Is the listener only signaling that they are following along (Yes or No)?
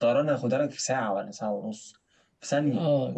No